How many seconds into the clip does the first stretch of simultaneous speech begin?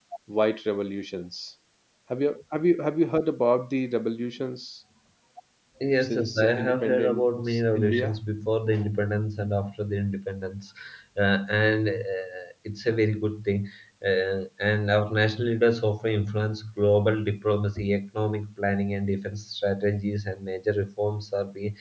6.0 s

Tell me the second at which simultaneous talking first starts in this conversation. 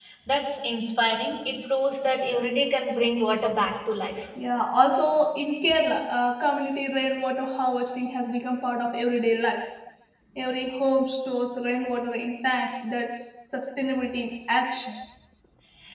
none

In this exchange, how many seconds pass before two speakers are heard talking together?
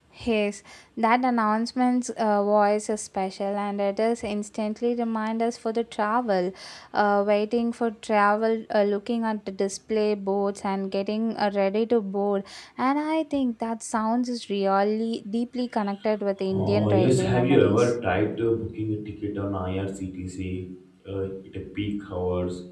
16.5 s

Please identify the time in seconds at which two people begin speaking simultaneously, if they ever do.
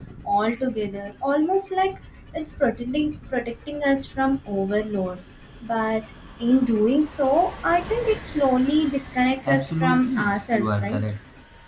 9.4 s

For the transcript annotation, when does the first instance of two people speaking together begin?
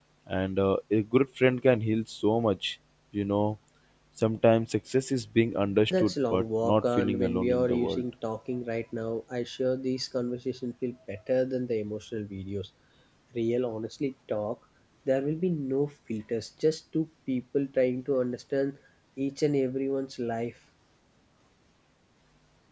5.9 s

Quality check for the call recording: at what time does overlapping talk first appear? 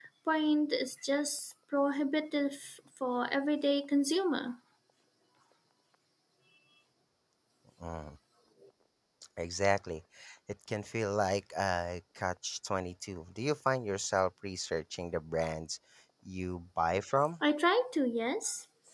none

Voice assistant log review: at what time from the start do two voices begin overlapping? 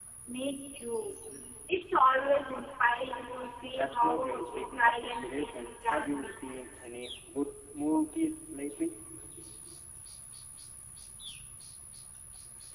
3.8 s

